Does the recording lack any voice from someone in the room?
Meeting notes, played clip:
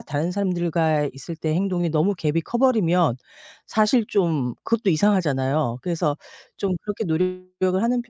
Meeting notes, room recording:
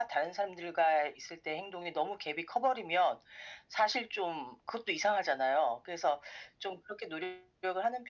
Yes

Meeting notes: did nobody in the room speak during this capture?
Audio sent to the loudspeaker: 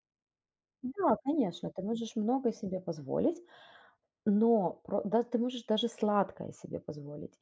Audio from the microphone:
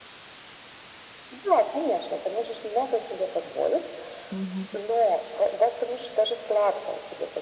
No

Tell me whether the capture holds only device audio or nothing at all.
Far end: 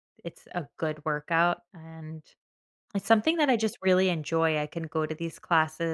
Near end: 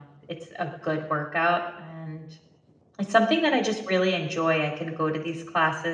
Yes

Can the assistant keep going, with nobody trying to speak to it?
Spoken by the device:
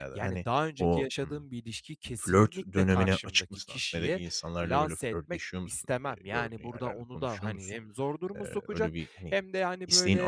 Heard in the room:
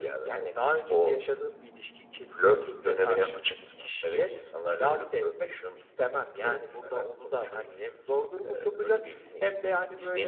Yes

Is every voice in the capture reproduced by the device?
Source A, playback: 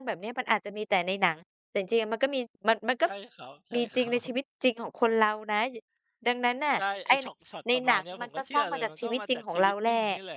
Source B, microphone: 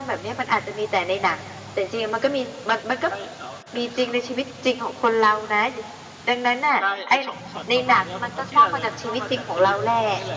Yes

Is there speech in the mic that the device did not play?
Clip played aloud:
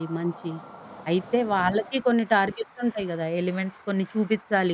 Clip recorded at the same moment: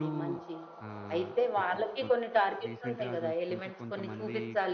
Yes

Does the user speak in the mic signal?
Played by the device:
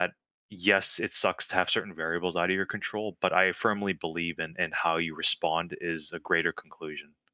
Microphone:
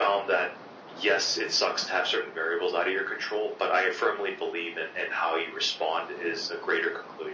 No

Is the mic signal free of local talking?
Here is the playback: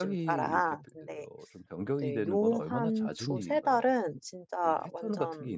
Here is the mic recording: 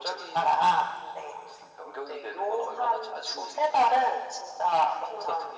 Yes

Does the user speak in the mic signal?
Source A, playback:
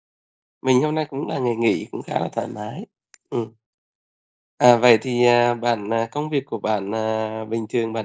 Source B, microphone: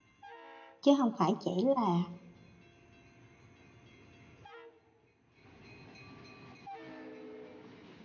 Yes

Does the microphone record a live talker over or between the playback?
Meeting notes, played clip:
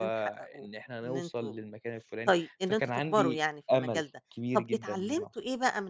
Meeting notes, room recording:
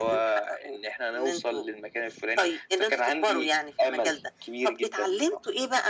No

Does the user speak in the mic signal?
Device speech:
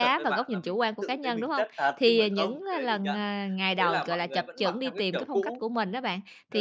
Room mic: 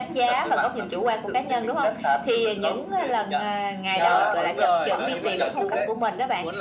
Yes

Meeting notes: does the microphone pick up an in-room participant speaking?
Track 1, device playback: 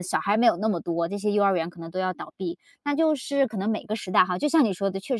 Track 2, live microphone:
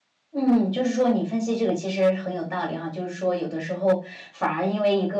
Yes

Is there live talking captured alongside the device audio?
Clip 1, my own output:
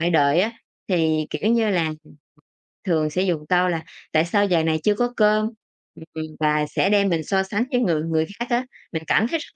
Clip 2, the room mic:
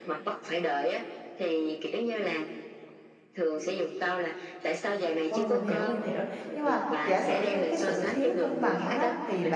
Yes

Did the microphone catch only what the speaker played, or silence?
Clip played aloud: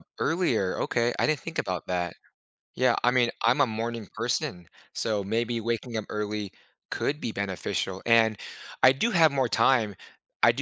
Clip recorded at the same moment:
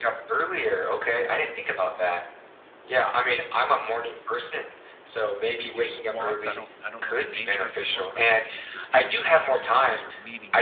No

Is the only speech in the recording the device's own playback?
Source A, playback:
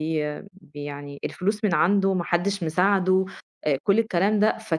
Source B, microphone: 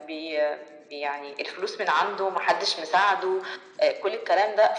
Yes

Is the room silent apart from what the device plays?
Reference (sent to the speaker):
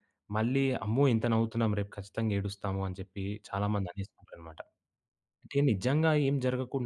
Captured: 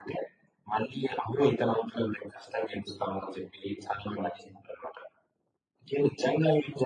Yes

